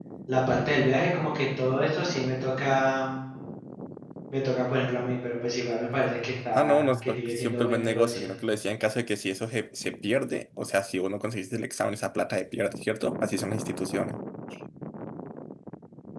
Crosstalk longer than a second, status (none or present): present